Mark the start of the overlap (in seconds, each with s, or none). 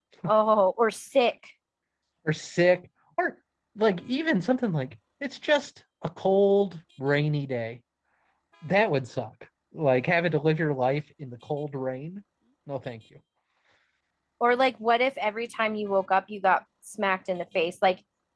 none